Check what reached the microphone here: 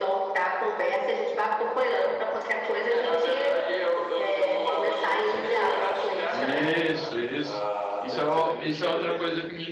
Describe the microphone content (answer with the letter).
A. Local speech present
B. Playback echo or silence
A